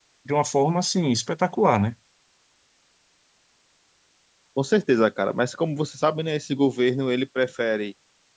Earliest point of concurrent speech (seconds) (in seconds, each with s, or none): none